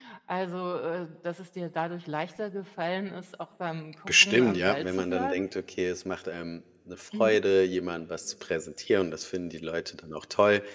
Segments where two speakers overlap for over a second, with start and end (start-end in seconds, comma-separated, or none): 4.1-5.4